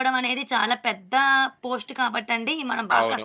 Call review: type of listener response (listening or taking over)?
taking over